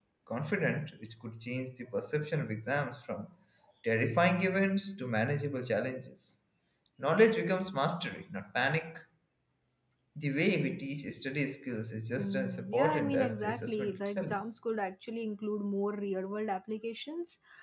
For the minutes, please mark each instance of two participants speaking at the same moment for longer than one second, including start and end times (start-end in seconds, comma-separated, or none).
12.2-14.4